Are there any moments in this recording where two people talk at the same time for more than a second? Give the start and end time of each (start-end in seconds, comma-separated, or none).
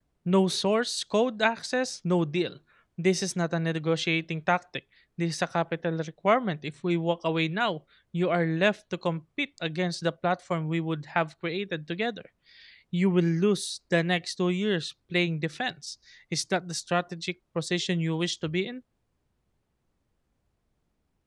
none